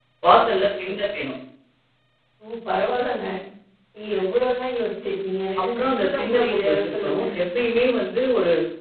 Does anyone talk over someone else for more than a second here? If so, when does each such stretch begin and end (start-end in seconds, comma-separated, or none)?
5.8-7.2